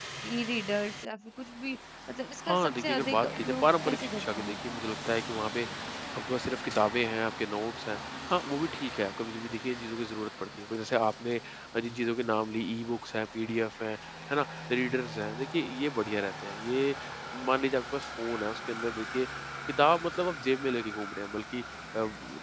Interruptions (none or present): present